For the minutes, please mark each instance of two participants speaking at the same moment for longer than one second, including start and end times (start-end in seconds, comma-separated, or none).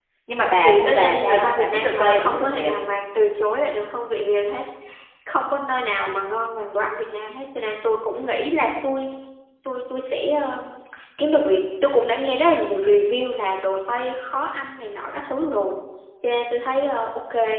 0.6-2.7